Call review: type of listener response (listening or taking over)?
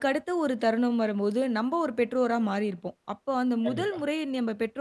listening